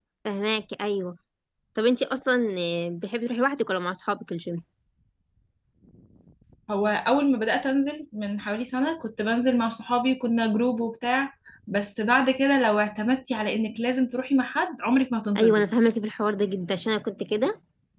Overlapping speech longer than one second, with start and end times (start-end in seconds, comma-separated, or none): none